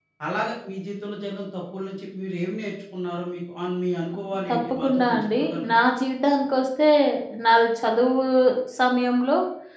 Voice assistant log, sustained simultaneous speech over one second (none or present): present